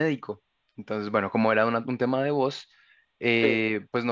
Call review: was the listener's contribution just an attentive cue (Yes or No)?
Yes